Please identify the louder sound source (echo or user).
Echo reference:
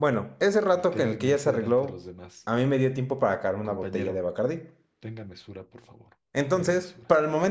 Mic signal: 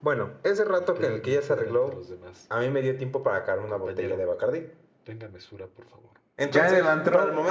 user